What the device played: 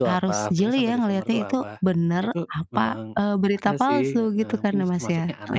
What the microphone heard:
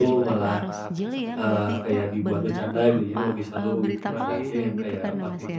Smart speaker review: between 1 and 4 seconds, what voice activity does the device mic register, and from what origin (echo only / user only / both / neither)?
both